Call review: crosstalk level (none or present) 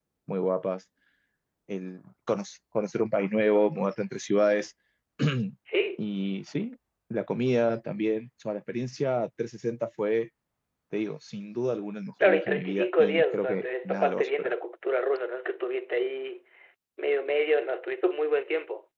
present